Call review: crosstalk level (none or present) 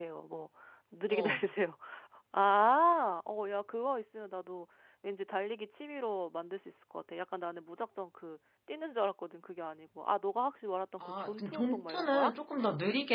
present